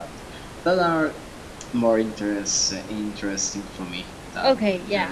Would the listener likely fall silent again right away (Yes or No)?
No